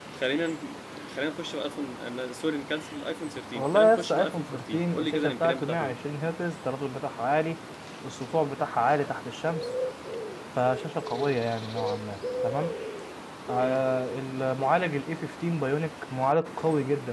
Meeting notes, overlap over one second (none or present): present